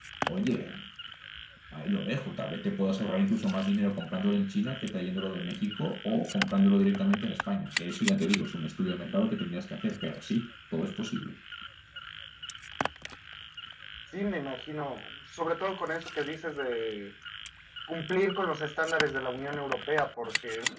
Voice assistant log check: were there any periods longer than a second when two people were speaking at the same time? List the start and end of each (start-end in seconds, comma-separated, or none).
none